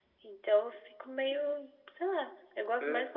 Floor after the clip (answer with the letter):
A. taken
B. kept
B